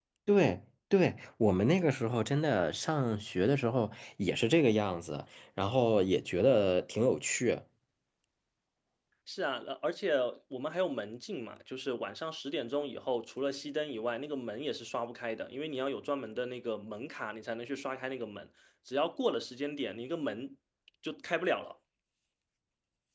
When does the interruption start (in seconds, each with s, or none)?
none